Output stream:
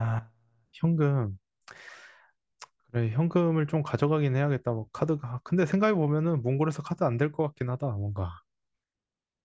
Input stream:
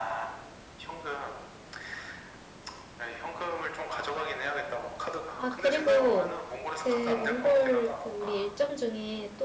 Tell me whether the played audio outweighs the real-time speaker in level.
No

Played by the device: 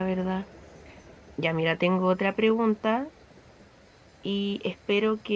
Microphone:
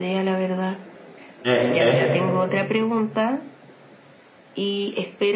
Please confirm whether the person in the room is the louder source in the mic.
Yes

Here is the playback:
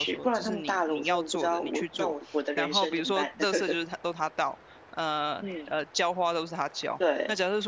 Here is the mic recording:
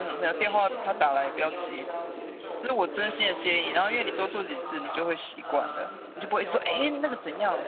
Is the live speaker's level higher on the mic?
Yes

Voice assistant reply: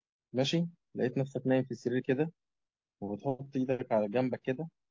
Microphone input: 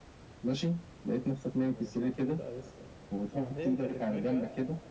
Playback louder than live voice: Yes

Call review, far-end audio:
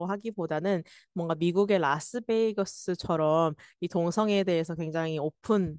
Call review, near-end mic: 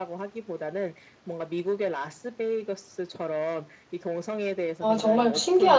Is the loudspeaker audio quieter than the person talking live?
Yes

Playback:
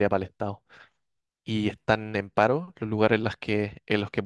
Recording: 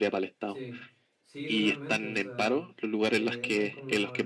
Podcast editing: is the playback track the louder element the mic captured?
Yes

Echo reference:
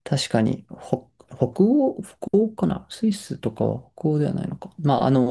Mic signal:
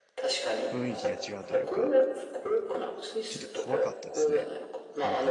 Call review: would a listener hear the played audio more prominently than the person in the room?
Yes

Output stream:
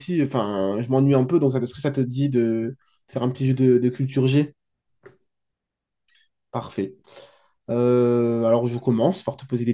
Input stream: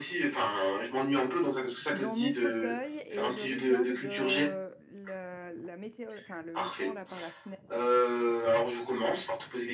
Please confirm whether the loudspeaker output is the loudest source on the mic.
Yes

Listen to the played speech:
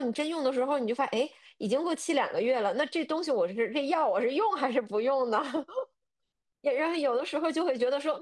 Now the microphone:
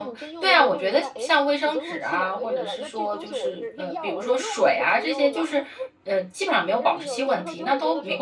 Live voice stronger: Yes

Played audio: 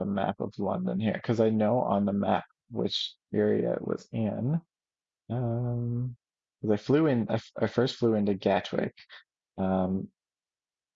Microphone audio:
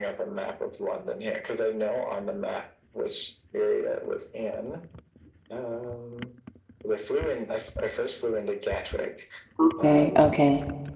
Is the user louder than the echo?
Yes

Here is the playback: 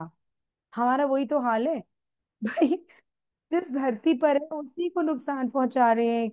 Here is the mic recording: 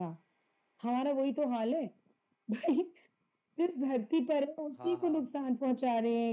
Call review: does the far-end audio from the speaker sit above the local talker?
Yes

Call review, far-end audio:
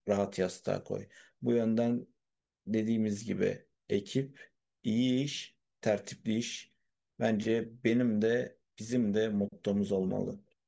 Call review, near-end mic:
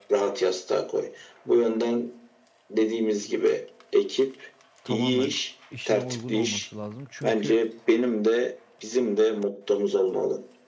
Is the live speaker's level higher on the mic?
No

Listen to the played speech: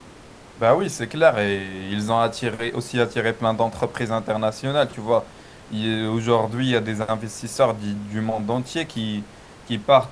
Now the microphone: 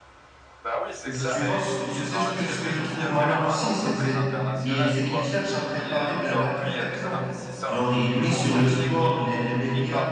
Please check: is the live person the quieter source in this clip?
No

